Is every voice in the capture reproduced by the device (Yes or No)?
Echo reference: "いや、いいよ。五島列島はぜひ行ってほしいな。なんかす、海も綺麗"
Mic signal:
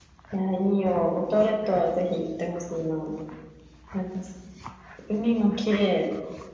Yes